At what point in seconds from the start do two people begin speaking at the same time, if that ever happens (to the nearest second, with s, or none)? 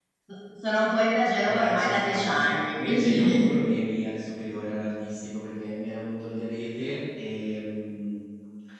1 s